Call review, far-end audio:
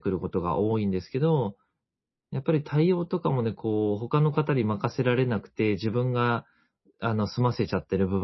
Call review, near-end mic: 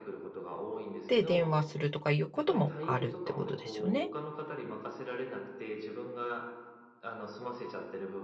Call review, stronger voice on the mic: user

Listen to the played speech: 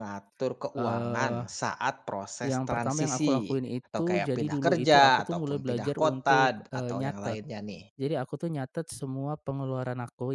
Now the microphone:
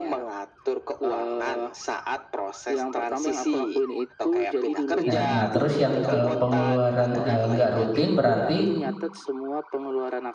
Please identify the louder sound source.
user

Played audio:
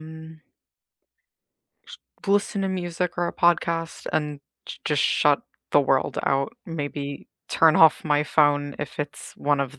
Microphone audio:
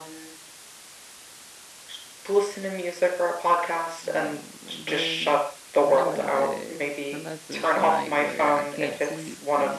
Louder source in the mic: echo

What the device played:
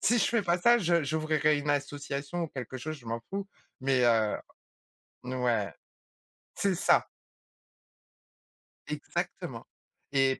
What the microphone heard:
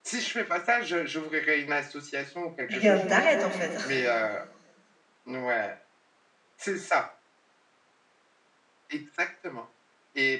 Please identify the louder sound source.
user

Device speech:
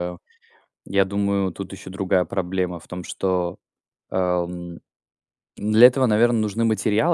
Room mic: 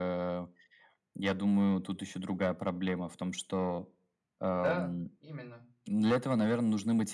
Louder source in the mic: echo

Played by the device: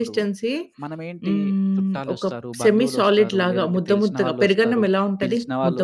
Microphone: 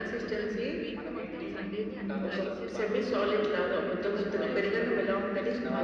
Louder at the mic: echo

